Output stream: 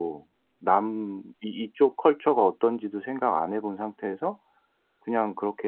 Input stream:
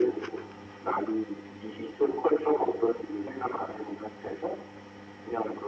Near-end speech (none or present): none